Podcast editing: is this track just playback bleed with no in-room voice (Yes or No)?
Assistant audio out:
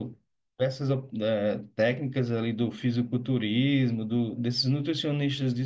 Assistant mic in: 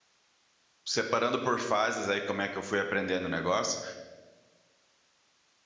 No